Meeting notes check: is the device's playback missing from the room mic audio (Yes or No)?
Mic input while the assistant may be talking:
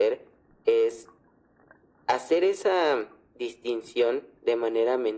No